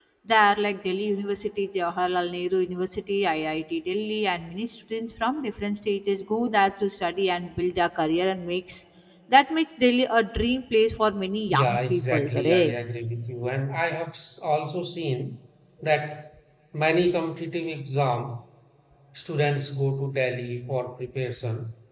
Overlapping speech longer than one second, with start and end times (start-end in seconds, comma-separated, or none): 11.5-12.7